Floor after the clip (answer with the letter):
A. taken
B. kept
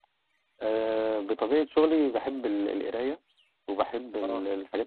B